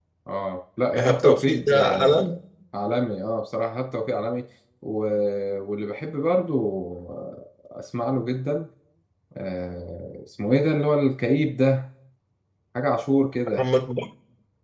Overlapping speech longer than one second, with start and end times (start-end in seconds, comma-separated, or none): 1.0-2.3